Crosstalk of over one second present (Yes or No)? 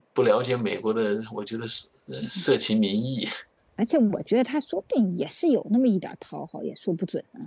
No